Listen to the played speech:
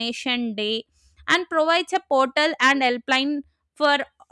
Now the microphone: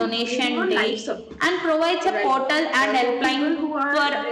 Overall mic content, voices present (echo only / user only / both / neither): both